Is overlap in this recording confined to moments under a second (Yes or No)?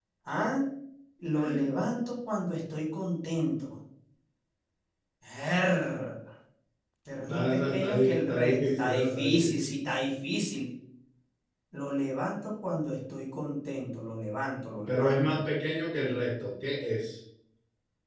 No